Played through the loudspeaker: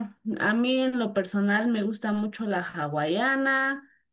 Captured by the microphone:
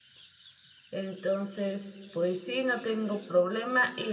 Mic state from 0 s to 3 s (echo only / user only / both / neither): user only